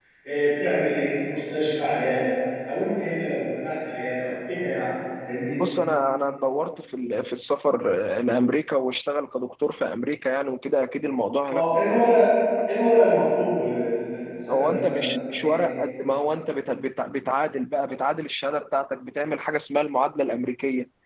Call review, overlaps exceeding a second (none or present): present